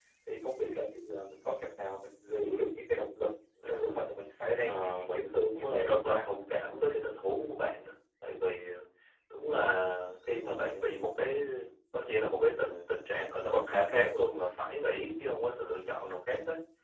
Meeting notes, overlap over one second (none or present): present